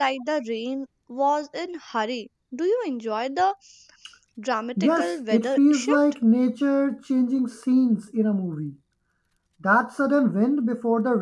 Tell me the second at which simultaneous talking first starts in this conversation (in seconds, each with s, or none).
4.8 s